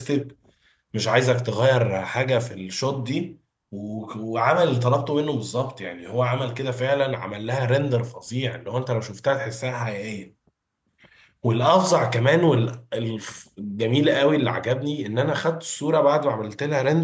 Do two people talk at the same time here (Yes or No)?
No